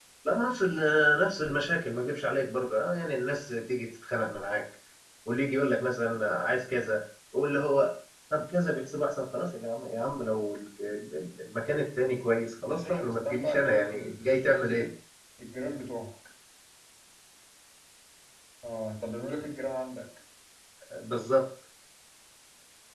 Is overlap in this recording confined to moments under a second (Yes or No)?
No